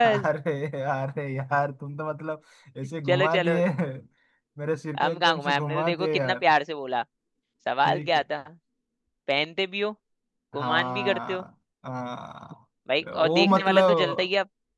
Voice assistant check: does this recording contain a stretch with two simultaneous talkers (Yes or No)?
Yes